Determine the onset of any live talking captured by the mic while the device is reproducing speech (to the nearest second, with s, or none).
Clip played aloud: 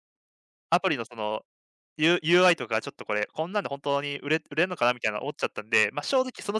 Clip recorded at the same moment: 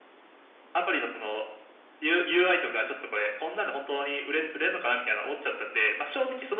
none